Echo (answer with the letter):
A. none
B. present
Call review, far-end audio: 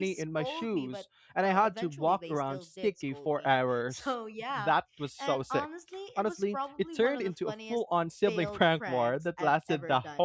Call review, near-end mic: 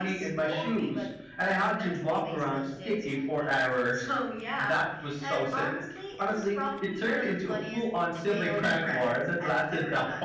B